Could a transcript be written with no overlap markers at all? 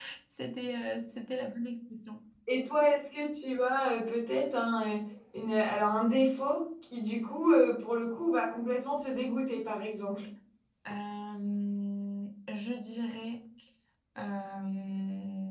Yes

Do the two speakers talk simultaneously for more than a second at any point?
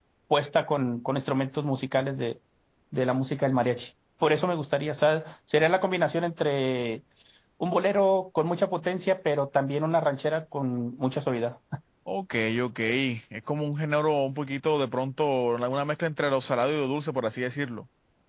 No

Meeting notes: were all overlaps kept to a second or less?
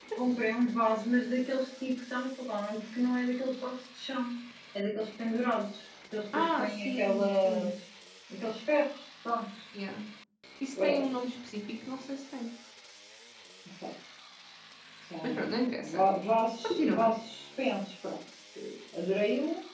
No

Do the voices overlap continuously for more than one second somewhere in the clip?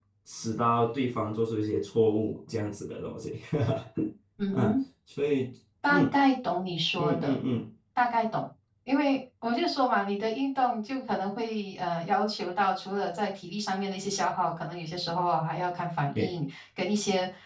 No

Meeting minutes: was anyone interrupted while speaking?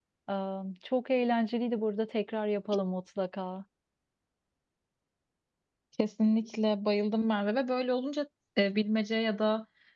No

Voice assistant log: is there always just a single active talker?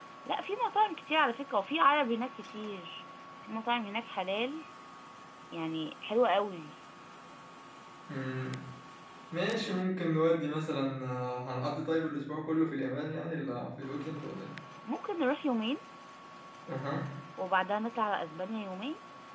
Yes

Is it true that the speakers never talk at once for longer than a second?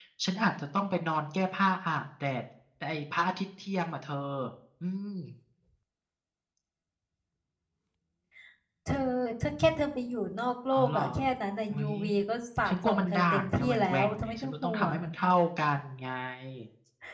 No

